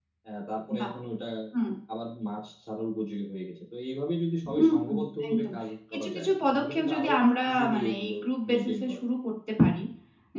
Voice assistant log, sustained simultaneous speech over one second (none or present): present